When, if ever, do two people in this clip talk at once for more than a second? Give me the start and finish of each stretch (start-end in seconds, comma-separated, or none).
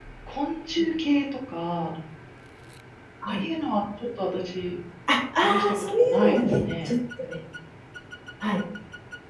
5.4-6.9